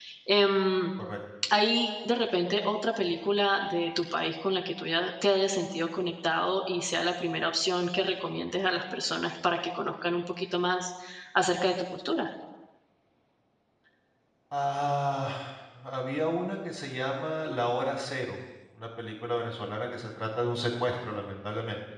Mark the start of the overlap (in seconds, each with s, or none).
none